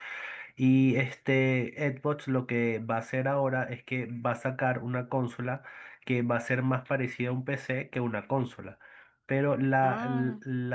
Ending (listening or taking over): listening